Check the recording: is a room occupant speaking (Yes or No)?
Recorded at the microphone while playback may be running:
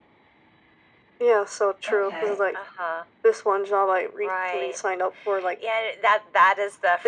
Yes